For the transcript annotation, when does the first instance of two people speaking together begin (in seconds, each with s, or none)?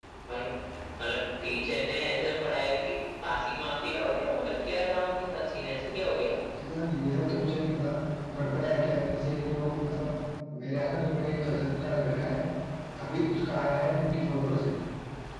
none